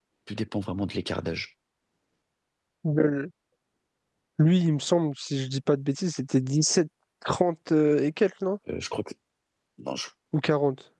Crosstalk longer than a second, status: none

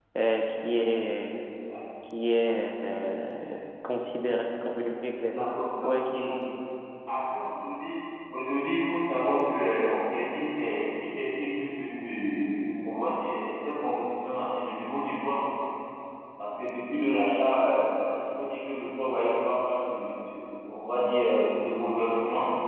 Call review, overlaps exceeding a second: none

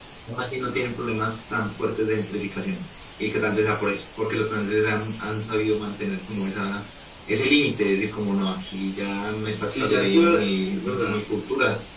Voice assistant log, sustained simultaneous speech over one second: present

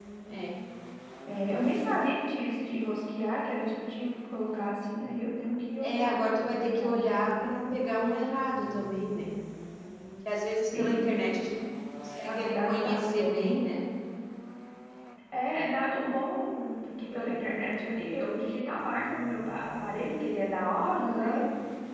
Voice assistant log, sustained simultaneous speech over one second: present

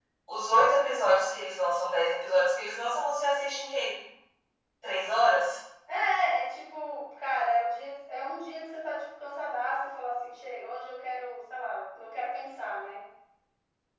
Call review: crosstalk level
none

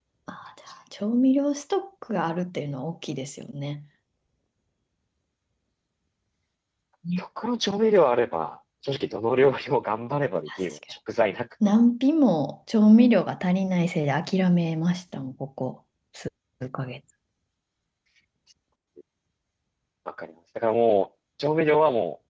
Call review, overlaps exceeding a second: none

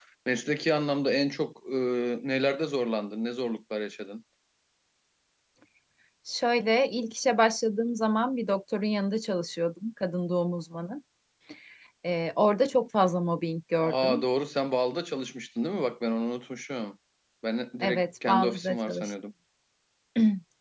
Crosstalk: present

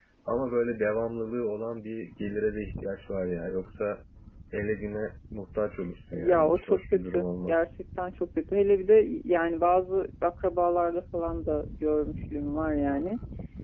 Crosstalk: present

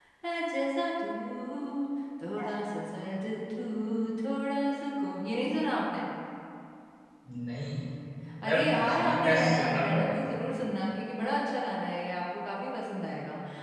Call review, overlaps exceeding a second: present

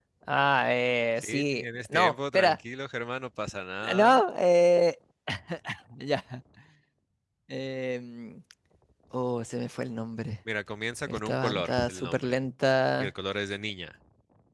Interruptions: present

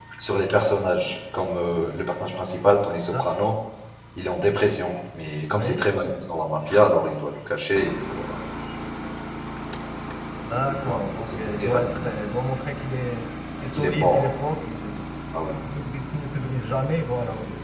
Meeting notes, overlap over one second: present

